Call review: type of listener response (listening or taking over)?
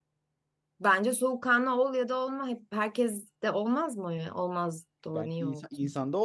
taking over